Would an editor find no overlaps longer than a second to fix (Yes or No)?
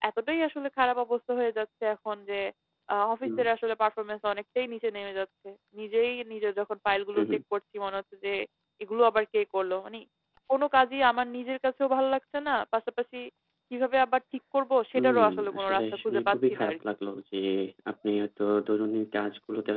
No